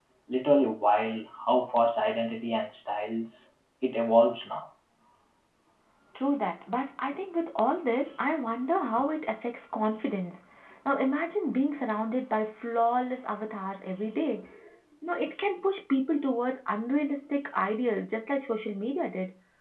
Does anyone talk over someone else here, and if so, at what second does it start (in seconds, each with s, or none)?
none